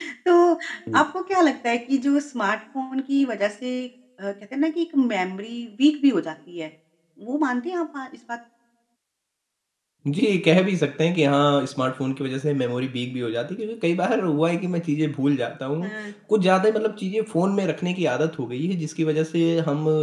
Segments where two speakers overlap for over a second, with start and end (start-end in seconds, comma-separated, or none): none